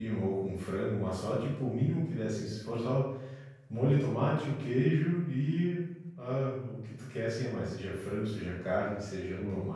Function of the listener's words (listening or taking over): listening